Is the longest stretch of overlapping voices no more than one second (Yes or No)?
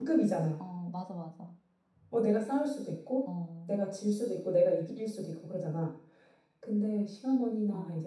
Yes